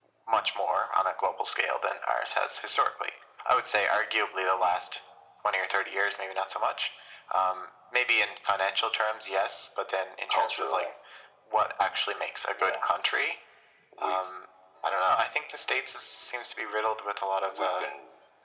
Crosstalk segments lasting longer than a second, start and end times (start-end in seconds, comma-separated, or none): none